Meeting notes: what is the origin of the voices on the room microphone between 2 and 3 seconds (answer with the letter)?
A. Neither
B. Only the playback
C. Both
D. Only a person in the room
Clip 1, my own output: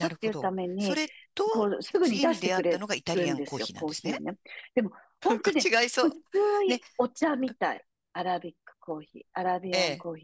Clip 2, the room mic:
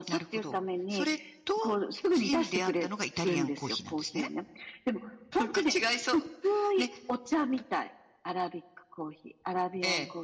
B